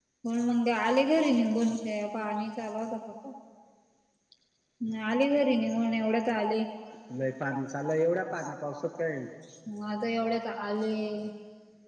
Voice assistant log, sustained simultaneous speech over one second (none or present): none